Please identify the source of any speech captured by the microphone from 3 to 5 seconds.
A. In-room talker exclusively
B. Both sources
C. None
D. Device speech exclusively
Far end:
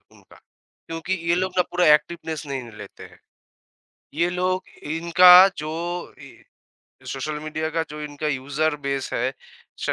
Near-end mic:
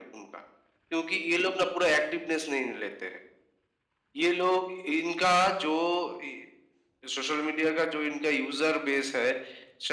D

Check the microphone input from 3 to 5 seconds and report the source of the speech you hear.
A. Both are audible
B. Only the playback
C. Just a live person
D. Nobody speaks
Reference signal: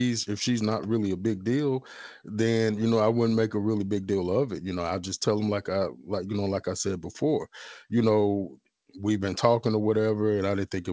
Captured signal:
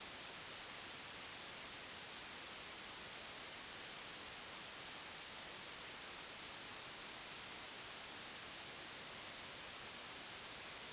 D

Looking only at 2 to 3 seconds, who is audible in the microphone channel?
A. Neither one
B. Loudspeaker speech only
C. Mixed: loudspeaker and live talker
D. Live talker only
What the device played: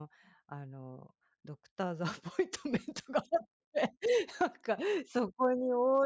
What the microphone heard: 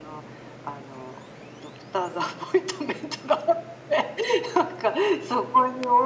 B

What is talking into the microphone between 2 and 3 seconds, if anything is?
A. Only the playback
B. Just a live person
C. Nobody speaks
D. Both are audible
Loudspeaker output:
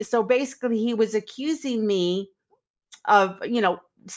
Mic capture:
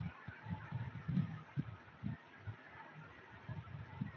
C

